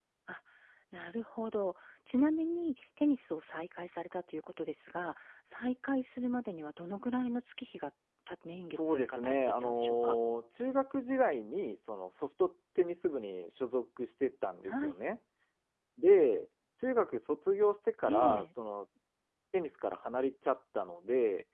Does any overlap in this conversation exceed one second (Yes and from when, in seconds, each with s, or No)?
Yes, from 8.8 s